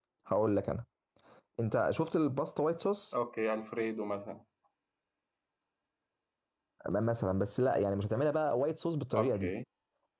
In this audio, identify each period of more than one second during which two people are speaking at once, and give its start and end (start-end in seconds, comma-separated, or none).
none